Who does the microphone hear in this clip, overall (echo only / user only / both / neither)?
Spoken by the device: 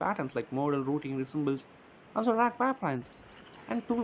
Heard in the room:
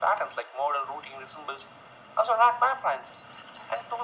echo only